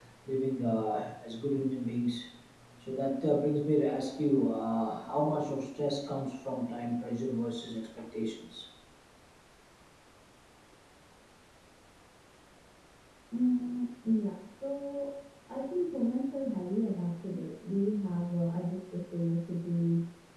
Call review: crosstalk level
none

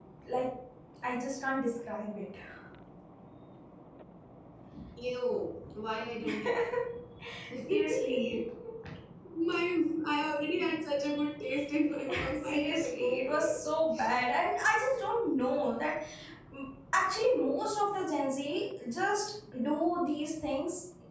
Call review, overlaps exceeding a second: present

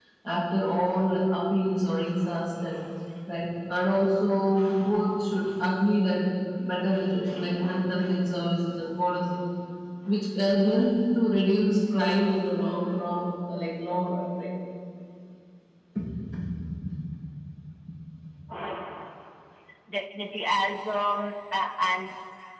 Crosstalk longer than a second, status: none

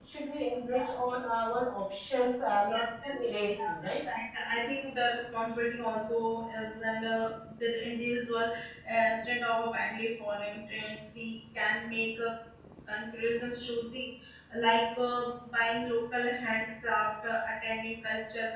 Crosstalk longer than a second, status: present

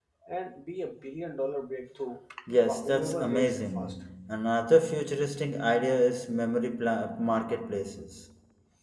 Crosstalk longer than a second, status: present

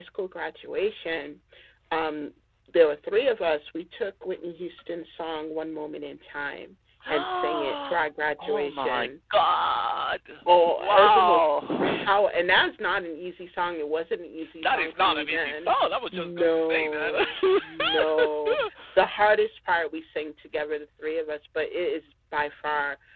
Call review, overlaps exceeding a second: present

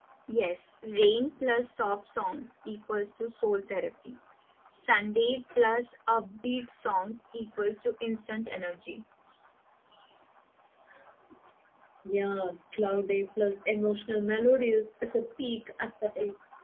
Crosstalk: none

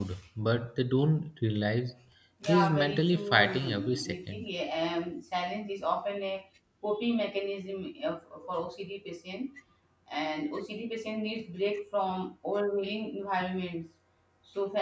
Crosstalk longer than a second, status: present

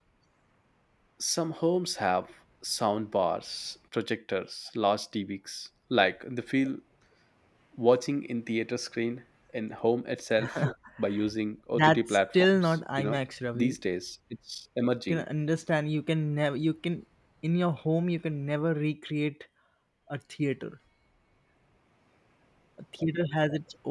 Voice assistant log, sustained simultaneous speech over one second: present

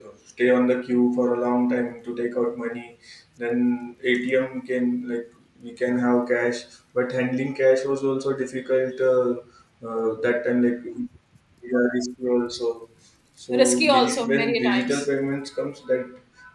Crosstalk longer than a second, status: present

